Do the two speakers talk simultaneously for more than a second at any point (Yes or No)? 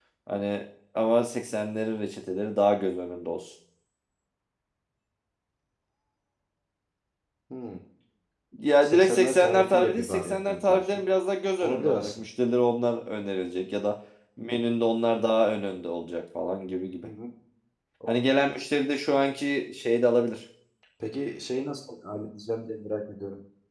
Yes